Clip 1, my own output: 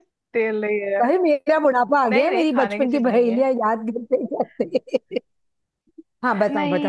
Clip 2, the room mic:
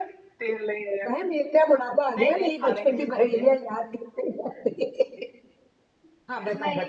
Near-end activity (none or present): none